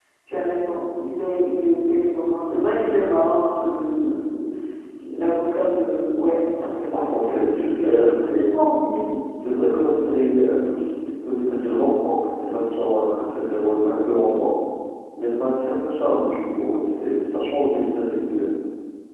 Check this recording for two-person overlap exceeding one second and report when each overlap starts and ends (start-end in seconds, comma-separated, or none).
6.9-8.5